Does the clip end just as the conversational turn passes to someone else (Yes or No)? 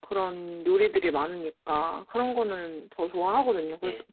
No